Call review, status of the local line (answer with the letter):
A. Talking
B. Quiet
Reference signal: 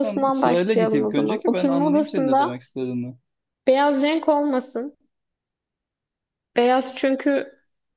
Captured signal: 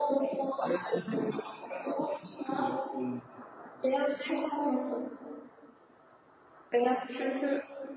B